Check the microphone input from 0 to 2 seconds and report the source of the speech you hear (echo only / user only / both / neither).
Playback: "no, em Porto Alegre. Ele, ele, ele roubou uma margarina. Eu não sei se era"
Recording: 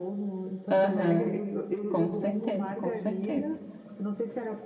both